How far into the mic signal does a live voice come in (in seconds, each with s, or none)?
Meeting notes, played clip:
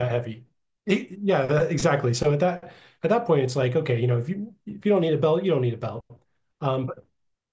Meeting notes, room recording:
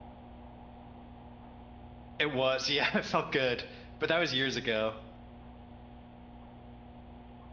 2.2 s